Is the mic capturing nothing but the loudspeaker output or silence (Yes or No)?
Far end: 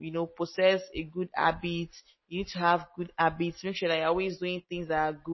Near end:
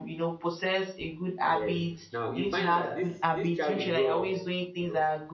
No